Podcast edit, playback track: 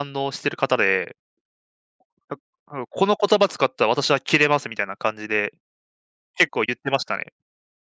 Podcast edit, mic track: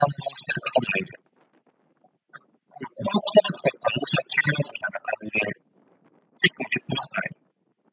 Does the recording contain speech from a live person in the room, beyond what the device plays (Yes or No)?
No